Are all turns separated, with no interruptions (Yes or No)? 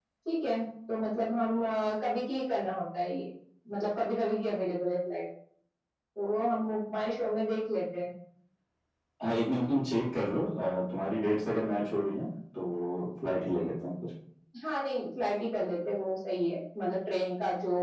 Yes